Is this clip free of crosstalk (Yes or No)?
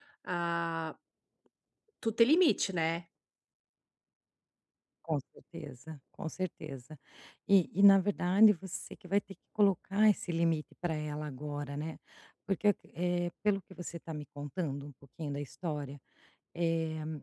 Yes